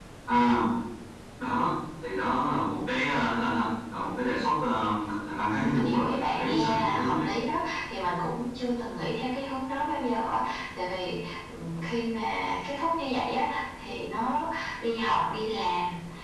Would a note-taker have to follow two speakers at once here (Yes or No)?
Yes